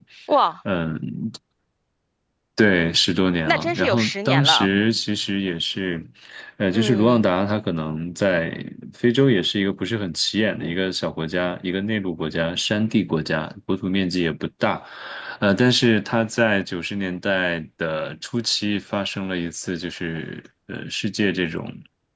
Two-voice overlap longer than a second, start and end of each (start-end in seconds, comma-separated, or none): 3.5-4.7